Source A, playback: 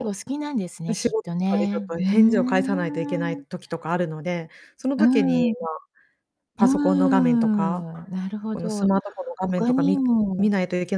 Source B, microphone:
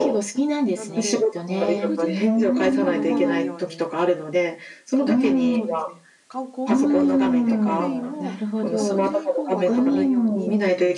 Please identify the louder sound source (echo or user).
echo